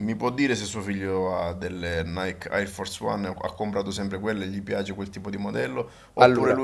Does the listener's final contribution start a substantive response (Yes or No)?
No